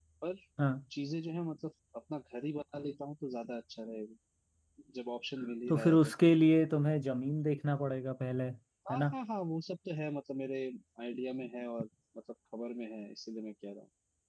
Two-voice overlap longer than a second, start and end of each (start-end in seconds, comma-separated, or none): none